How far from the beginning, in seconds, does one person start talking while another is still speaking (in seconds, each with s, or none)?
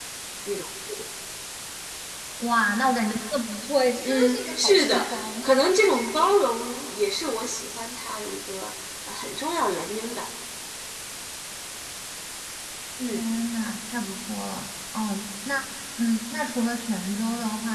4.0 s